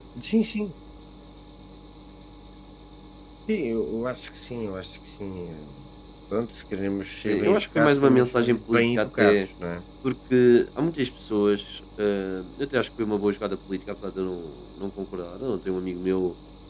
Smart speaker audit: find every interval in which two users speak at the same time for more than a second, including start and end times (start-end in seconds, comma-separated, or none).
7.2-9.5